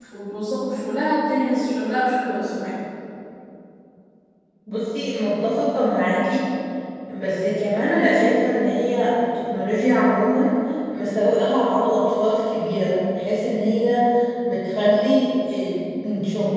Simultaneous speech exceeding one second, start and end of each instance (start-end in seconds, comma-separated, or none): none